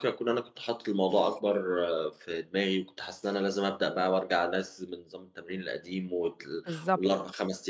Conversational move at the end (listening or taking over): listening